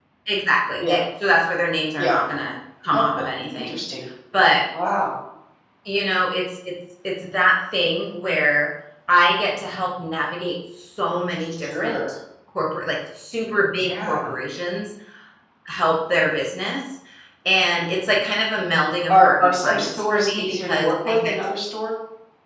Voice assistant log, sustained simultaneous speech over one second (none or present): present